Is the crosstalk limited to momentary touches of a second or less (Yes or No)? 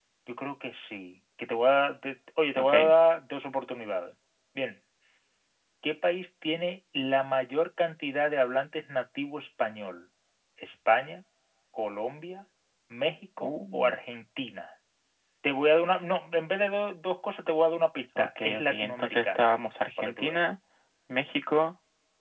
No